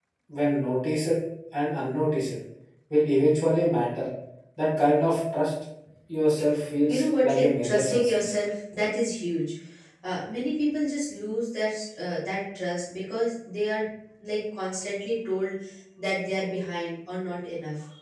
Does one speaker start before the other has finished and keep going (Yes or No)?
Yes